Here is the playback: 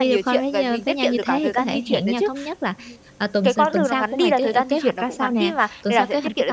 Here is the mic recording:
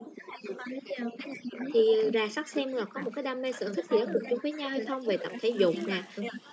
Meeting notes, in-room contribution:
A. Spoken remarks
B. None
A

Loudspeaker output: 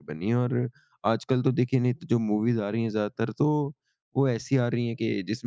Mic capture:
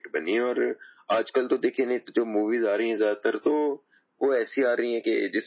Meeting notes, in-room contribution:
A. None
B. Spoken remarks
A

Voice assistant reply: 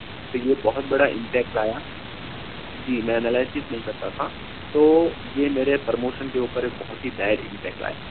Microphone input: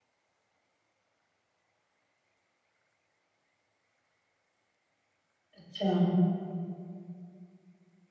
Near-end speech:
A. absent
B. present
B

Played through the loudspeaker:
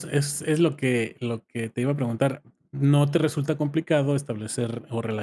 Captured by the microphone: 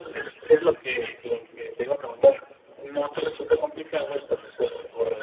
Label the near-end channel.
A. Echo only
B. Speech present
A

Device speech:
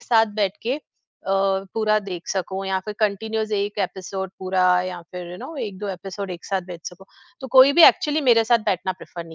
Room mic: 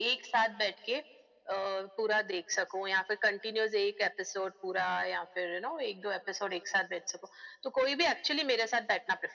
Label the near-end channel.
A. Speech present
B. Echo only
B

